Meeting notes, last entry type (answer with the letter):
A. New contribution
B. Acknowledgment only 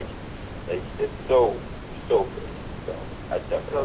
A